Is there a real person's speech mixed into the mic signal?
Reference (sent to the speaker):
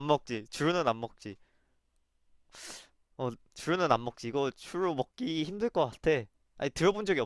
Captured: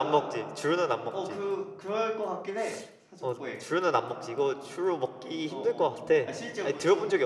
Yes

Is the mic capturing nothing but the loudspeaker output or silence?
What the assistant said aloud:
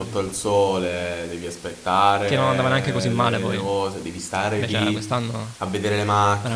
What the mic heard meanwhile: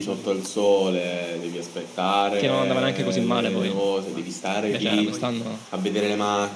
No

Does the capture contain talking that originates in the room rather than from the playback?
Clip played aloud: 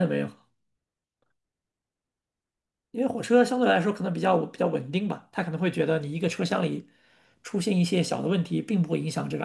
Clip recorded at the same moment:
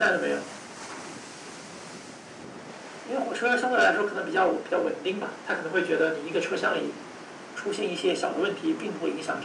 No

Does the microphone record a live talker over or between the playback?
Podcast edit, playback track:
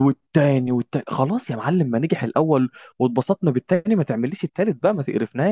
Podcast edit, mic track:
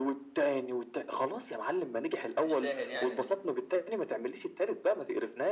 Yes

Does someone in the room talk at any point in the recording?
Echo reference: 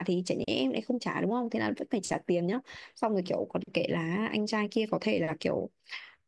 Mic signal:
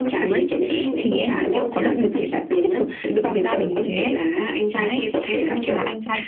Yes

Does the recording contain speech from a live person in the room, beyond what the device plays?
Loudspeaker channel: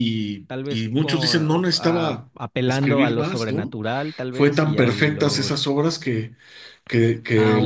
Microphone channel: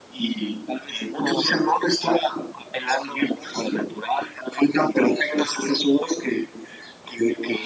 No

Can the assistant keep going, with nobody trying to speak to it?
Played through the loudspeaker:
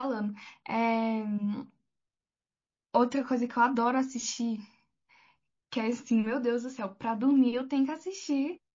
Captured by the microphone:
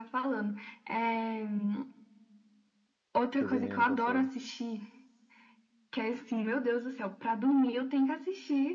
No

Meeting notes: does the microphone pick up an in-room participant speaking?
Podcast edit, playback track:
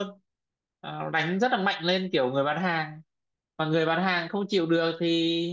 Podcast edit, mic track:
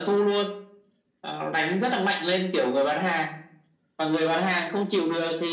No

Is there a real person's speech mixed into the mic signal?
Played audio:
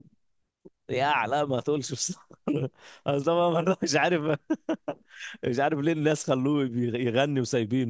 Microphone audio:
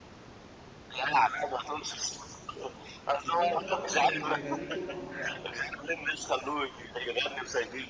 Yes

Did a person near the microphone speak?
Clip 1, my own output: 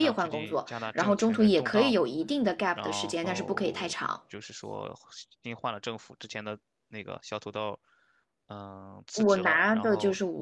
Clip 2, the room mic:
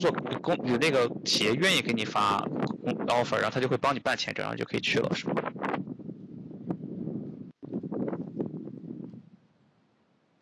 Yes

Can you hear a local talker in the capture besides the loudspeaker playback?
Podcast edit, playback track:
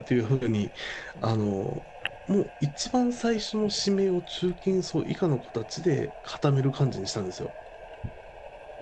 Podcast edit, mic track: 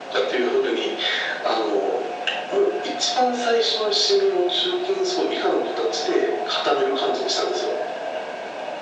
No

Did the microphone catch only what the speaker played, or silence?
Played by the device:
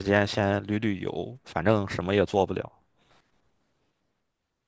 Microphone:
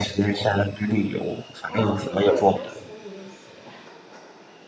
No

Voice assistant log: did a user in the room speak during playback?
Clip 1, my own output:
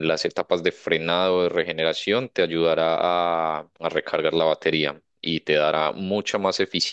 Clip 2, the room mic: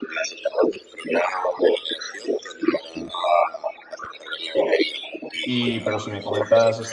Yes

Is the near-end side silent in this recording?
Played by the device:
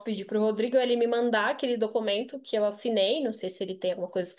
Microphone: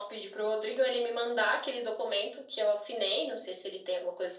Yes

